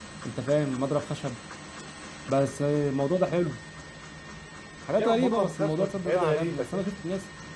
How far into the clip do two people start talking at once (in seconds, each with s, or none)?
5.0 s